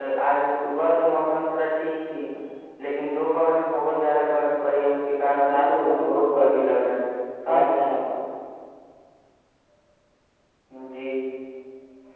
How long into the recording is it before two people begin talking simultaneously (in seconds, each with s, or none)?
5.2 s